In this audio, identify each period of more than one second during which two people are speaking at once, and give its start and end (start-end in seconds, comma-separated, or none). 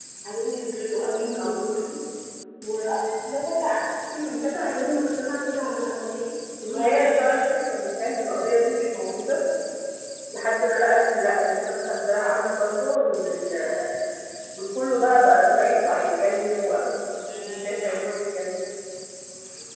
none